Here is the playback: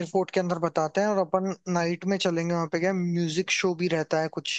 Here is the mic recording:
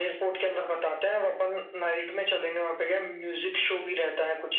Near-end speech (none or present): none